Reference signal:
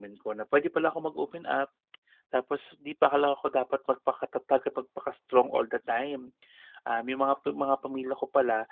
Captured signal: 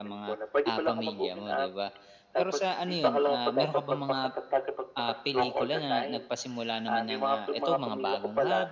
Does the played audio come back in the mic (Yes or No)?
Yes